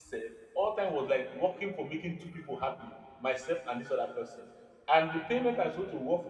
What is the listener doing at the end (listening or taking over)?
listening